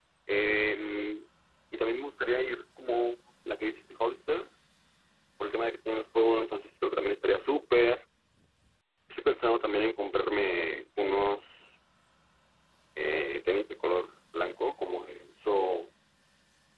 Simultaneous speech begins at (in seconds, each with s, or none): none